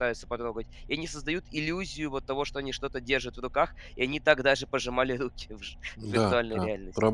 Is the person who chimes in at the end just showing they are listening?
No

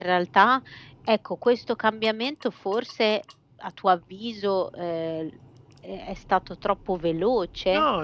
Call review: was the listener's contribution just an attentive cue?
No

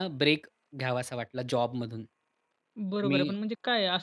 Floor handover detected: Yes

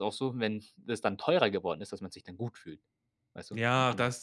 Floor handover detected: Yes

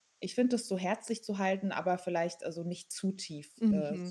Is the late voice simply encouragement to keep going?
No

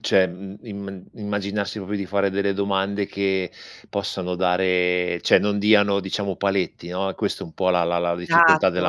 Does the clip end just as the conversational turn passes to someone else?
Yes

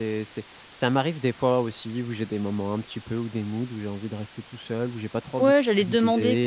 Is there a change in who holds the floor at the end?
Yes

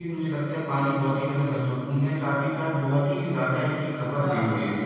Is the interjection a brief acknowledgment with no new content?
No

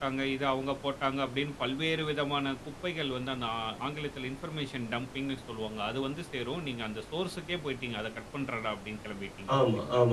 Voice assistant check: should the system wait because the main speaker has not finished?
No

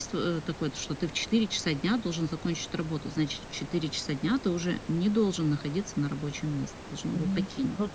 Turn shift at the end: Yes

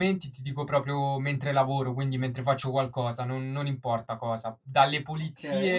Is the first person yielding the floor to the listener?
No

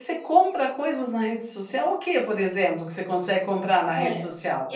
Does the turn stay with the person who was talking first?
No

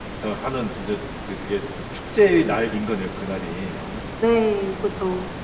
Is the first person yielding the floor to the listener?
Yes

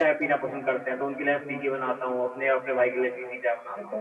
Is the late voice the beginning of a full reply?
Yes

